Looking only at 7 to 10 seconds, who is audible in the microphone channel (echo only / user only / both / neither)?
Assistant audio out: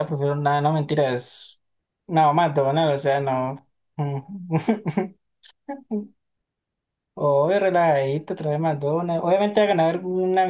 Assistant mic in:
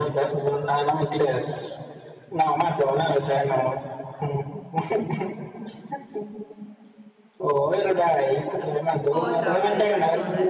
both